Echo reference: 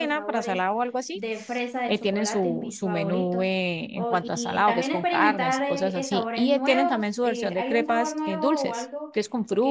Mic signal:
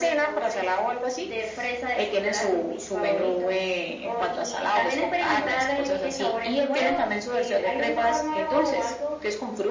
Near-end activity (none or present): none